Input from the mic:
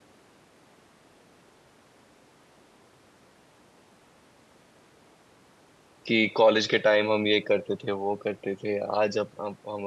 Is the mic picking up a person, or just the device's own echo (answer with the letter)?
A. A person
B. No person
A